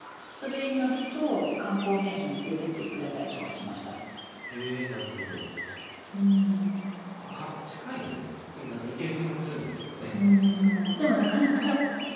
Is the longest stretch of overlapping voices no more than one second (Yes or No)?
Yes